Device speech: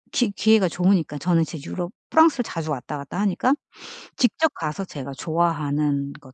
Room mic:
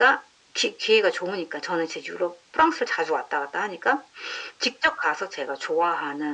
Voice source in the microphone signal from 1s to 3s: echo only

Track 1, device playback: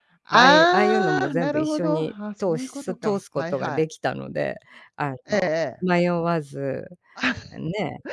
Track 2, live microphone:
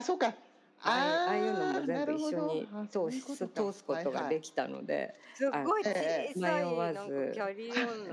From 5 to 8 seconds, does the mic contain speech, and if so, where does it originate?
both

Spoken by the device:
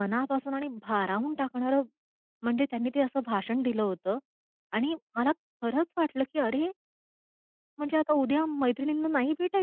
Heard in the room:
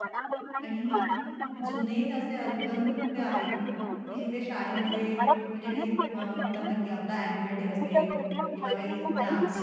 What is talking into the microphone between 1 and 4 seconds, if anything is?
both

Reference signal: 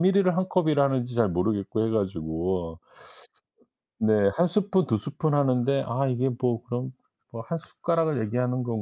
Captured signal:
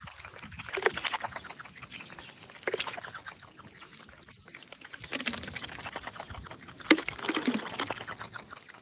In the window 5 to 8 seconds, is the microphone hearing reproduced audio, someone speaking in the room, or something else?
neither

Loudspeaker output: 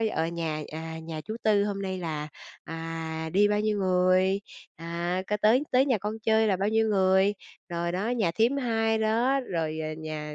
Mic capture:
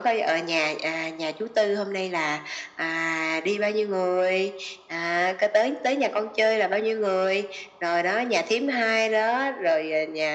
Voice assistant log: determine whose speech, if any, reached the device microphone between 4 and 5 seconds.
echo only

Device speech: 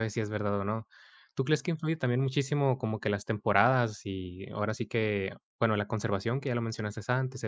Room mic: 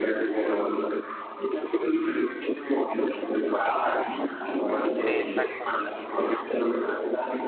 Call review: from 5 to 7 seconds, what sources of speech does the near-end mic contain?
both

